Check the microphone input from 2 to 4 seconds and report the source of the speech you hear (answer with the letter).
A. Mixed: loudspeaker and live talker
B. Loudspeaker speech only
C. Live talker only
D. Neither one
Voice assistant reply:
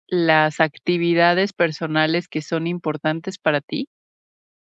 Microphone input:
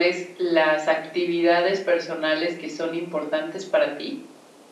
B